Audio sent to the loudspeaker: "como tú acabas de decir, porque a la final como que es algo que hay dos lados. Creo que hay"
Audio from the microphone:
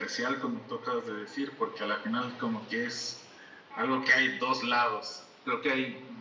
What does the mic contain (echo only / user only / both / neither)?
echo only